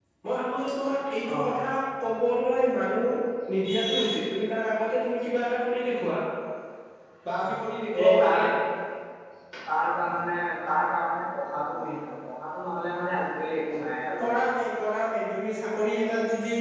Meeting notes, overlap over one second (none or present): none